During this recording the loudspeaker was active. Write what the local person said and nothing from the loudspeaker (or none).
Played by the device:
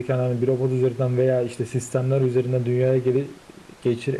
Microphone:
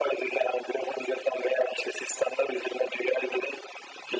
none